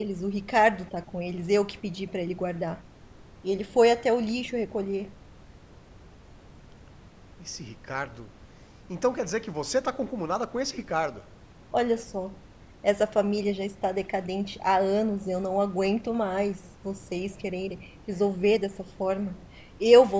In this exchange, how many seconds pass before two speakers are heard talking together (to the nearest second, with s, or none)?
none